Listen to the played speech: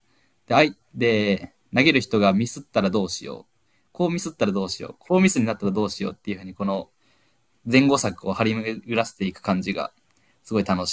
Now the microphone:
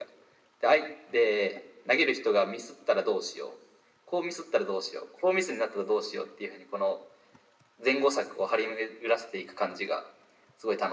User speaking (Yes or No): No